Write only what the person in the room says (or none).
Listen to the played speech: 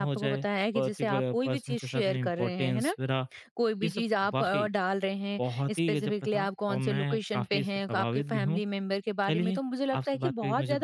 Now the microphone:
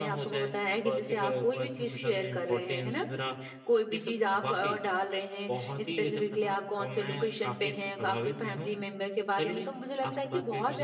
none